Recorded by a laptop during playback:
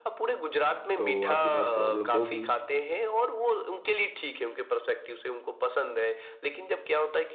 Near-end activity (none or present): present